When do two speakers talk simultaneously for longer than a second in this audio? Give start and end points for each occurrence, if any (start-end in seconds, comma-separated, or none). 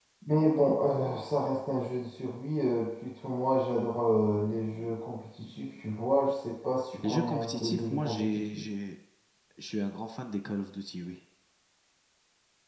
7.0-8.7